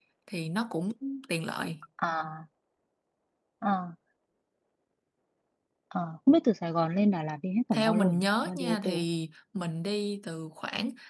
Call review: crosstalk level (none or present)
present